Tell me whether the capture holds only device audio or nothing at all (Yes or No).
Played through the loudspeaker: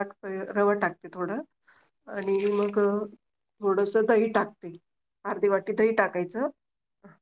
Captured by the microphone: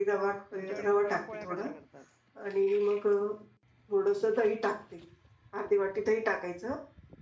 No